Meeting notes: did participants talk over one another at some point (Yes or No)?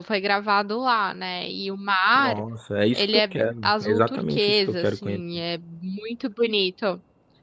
Yes